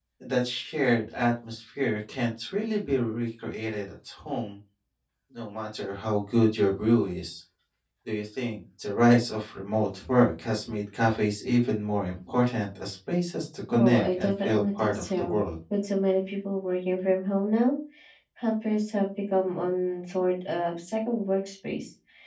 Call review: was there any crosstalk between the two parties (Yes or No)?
Yes